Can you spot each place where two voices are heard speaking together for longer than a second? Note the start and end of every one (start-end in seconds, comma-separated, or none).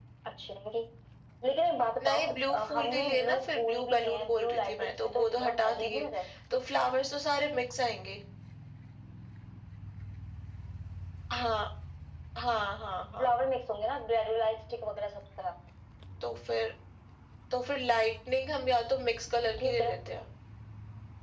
2.0-6.0